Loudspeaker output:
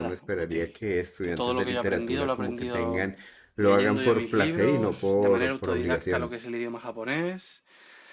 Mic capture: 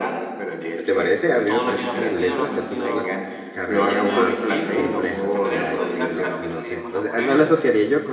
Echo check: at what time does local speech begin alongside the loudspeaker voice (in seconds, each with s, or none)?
0.8 s